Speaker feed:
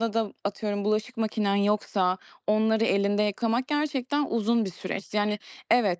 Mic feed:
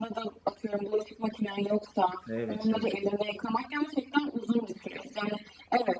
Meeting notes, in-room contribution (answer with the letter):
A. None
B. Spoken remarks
B